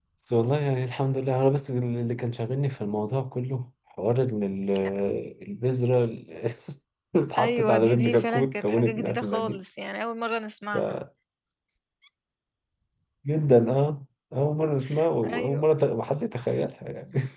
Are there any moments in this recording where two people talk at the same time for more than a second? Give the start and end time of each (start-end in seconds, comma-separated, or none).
7.4-9.6